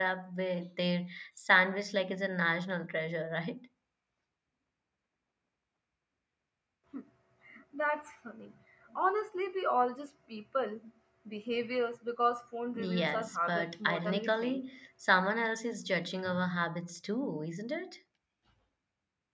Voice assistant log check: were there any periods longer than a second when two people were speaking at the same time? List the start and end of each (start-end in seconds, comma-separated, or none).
12.7-14.7